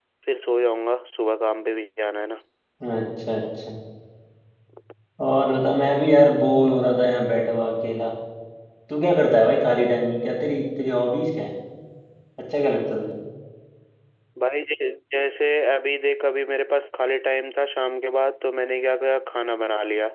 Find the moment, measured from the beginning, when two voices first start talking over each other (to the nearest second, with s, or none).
none